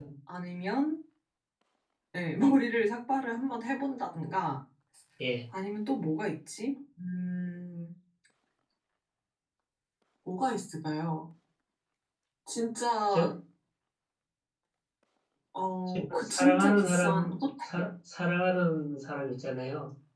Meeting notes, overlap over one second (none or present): present